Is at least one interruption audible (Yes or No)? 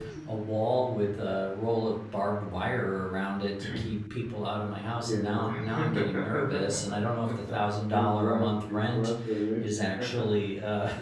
Yes